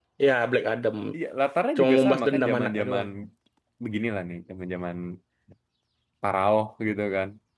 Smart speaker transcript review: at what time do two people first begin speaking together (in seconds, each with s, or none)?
1.8 s